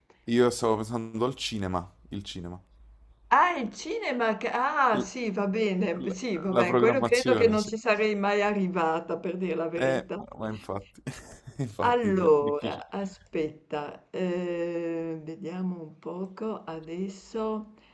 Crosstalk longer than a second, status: present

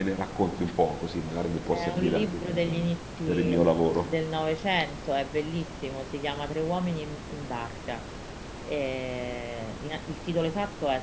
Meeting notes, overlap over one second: present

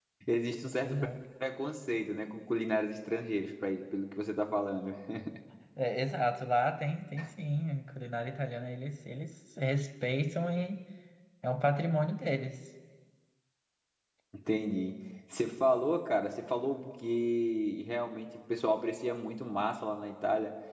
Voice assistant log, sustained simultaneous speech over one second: none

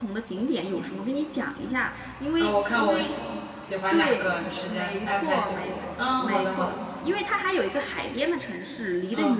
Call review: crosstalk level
present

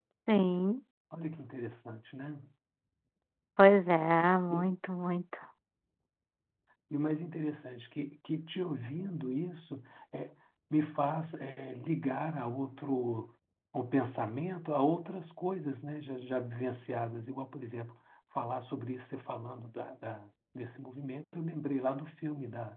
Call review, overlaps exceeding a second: none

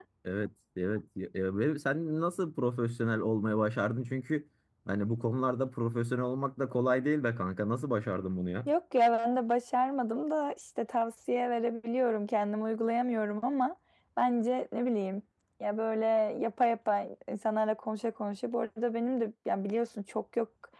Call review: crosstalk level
none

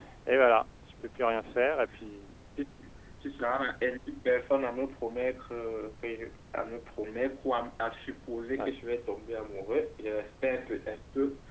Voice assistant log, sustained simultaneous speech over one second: none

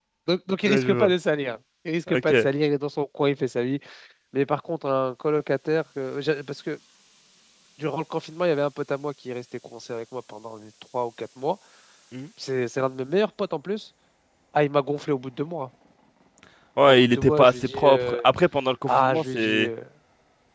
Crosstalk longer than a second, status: present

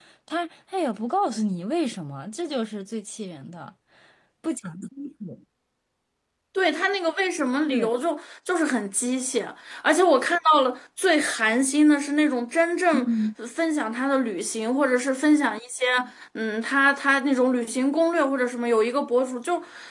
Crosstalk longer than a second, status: none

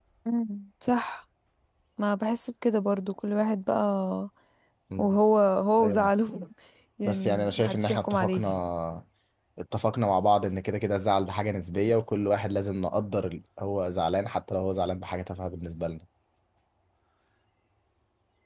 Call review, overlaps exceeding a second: present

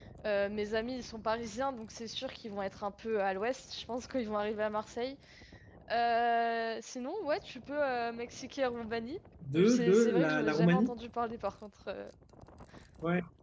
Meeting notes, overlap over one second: present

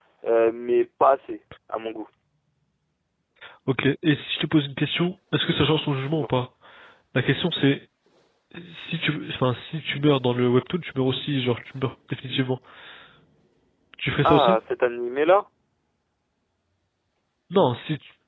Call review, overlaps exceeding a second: none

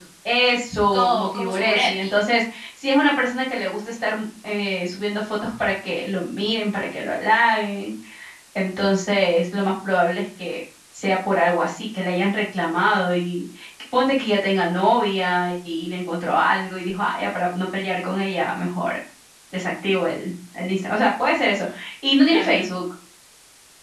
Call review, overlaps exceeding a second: present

